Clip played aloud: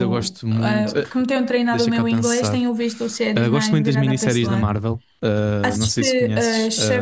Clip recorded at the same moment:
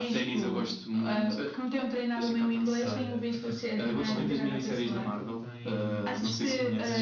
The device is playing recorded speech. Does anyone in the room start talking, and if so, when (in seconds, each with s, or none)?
2.8 s